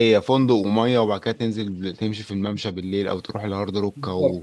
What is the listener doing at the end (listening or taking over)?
taking over